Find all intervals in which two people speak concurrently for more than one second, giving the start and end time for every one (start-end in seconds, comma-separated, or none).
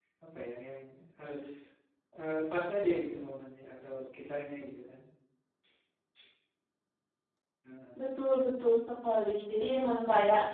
none